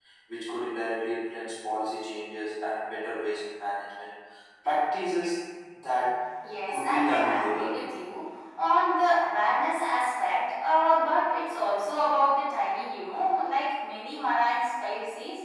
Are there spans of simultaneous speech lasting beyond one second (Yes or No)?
Yes